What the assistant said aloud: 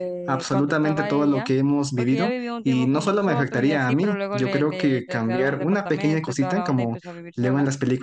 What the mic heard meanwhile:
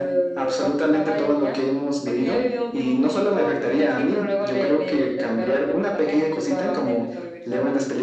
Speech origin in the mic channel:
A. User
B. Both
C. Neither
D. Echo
D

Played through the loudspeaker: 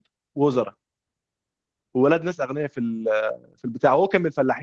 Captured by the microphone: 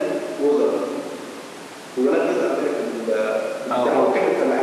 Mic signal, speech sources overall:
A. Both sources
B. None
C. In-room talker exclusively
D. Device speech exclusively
A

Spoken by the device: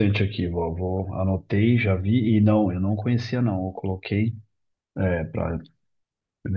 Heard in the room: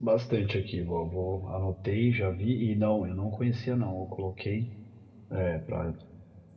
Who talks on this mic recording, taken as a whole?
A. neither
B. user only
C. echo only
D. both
C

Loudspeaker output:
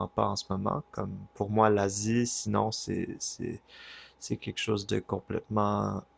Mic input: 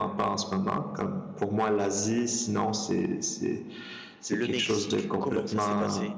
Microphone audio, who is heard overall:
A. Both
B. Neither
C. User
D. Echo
A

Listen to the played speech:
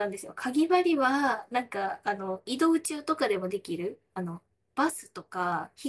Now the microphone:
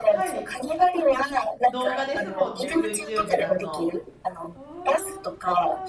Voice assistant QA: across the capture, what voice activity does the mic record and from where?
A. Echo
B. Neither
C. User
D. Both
D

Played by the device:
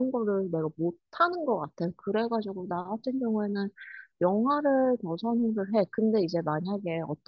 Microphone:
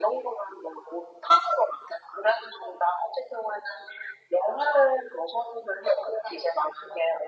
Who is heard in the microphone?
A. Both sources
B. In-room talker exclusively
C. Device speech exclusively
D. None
C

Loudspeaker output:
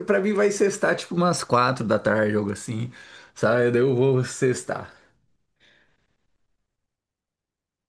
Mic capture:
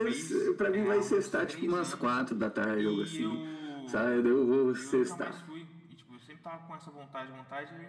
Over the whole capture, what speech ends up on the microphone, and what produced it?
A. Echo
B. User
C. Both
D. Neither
C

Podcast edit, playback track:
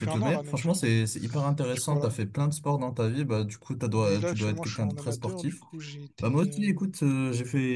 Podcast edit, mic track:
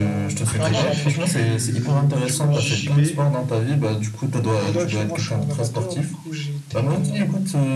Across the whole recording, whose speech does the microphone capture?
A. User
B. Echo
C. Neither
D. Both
D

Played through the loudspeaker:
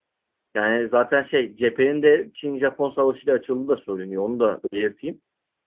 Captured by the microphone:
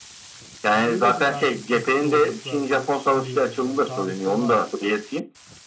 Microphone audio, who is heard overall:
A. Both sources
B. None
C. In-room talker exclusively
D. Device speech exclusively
A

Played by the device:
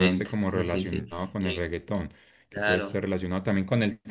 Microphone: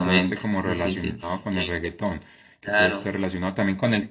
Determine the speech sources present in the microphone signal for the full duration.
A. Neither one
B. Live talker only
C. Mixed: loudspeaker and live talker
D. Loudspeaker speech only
D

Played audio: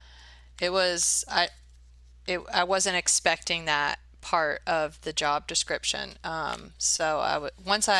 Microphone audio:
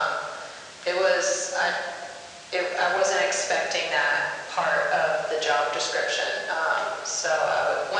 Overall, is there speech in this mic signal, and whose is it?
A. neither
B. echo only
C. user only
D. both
B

